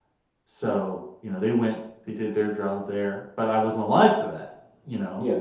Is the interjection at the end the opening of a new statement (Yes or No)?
No